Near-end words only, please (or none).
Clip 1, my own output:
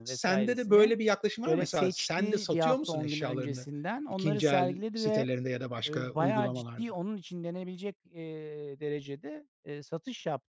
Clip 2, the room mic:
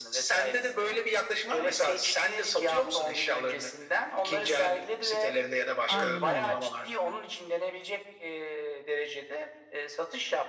Aynen öyle.